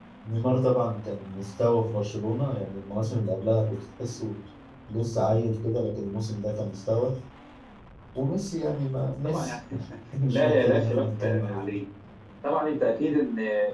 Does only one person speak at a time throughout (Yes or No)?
No